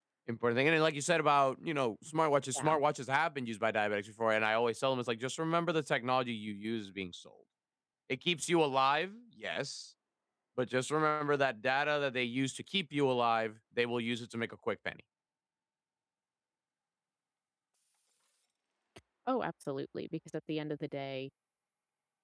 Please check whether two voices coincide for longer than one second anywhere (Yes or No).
No